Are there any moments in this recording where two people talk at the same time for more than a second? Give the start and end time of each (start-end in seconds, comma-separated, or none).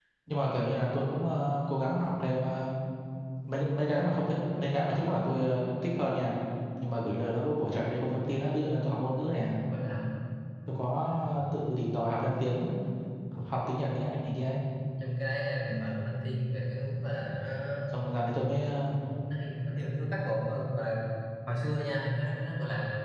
none